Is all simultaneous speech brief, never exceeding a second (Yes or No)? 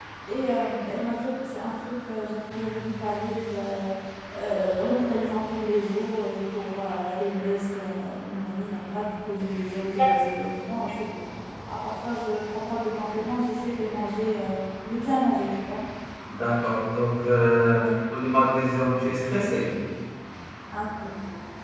Yes